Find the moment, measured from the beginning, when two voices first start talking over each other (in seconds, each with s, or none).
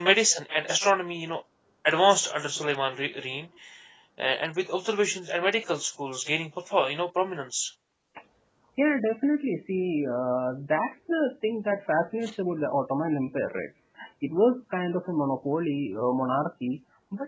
none